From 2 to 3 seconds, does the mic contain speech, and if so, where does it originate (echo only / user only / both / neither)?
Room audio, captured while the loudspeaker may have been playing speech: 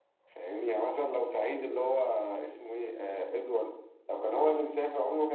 echo only